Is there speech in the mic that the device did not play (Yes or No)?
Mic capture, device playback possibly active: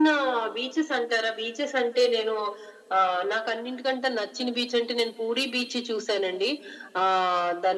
No